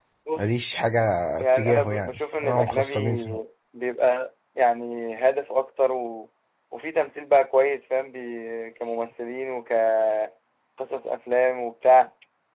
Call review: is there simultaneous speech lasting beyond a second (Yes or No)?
Yes